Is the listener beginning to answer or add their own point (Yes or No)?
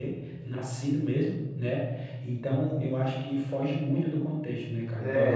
Yes